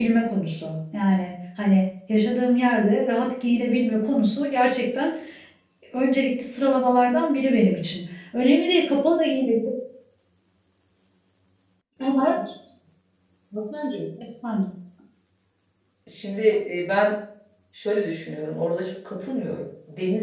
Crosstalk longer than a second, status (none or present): none